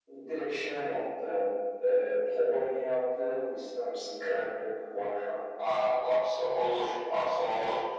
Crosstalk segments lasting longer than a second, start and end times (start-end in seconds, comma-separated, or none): none